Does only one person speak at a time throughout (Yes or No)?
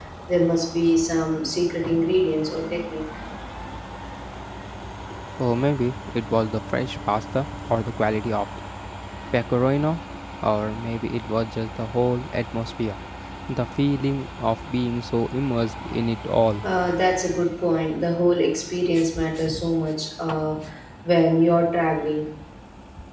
Yes